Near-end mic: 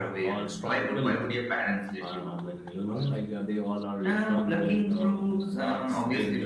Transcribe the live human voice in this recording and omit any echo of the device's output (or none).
none